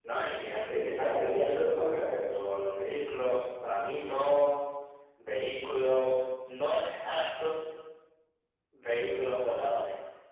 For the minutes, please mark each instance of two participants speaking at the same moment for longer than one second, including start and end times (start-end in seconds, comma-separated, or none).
0.7-2.4